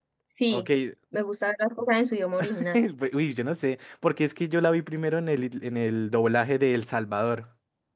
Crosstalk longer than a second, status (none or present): none